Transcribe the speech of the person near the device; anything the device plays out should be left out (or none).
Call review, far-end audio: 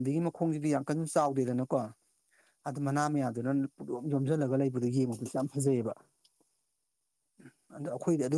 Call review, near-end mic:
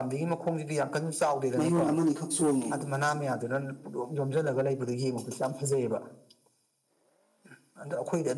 ꯃꯌꯣꯟ ꯑꯃꯅꯤꯈꯛ ꯆꯣꯡꯉꯤ꯫